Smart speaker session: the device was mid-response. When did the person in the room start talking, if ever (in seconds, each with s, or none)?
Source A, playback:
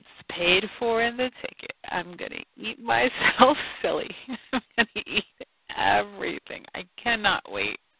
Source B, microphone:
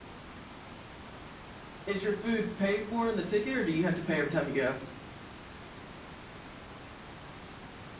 1.9 s